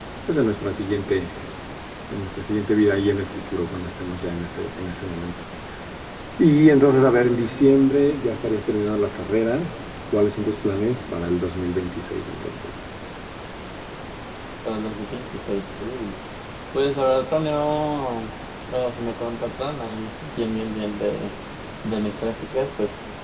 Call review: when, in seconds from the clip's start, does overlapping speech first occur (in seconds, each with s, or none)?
none